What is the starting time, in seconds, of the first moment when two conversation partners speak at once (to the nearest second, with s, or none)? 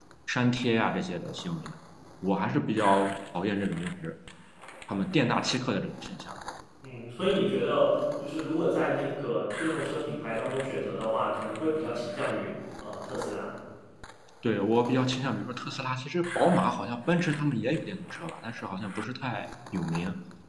none